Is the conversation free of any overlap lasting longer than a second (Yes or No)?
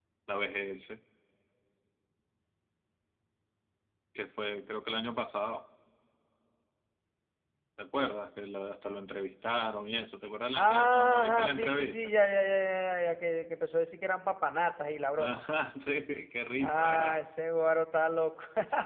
No